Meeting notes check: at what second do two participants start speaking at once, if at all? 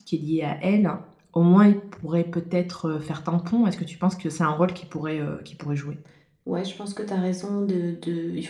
none

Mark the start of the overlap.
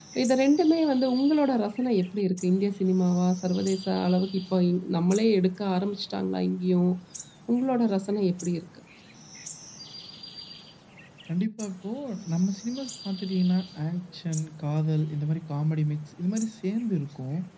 none

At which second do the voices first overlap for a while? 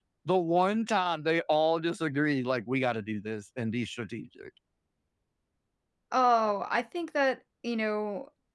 none

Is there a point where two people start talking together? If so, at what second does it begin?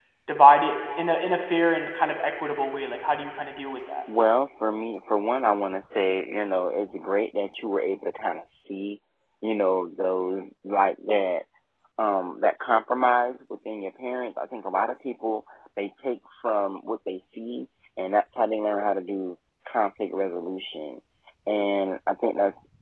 none

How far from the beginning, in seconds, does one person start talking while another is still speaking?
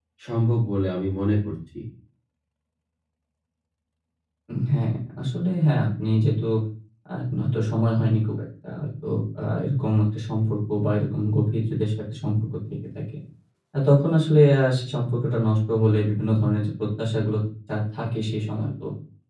none

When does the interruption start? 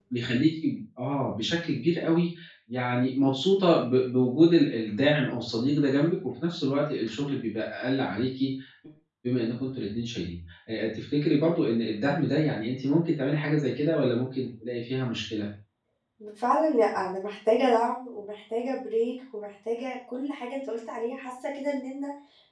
none

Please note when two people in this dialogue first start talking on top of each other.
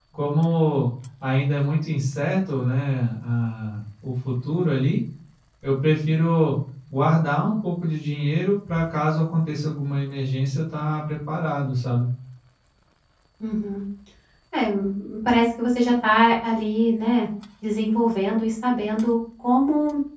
none

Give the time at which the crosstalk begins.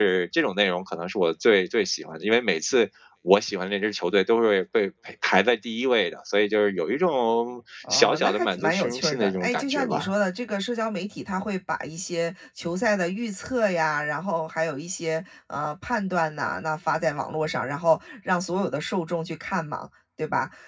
7.8 s

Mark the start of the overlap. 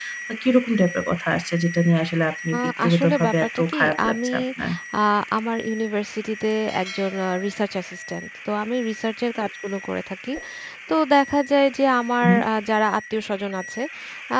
2.5 s

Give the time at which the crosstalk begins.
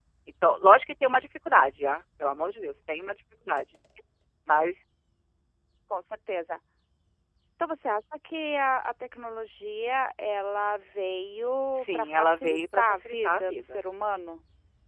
11.7 s

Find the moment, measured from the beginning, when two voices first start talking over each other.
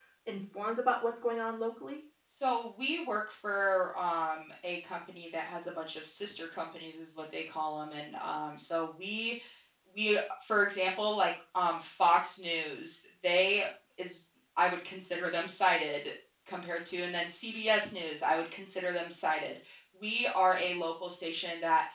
none

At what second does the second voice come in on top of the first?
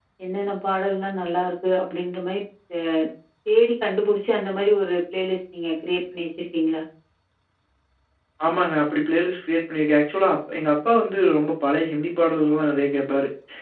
none

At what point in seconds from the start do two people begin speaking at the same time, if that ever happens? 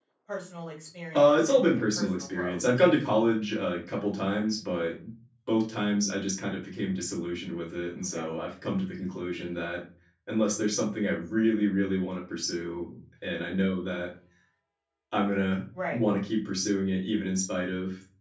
1.1 s

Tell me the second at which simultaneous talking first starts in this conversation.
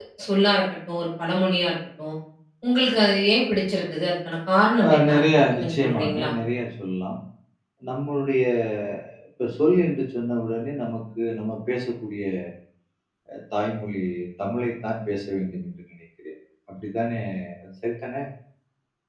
4.8 s

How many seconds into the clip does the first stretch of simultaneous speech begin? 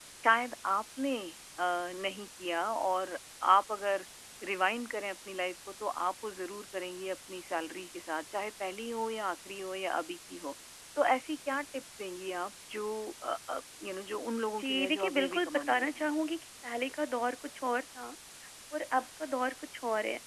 14.6 s

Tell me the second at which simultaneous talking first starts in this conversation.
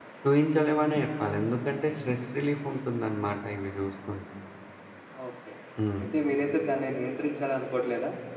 none

